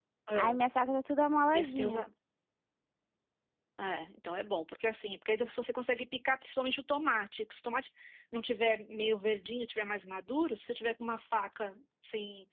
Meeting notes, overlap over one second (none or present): none